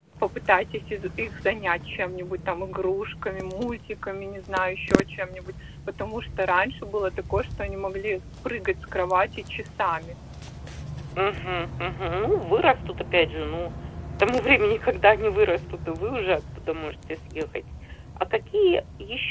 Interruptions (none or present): none